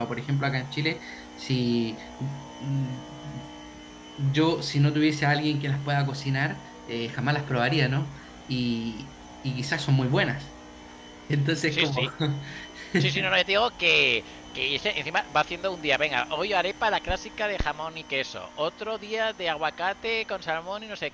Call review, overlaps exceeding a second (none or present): none